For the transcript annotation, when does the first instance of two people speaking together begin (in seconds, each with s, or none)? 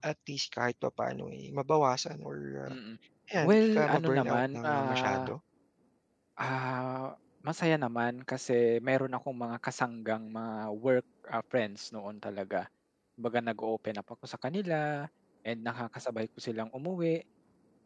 3.4 s